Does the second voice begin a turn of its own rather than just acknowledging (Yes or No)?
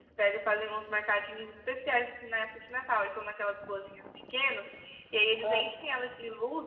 No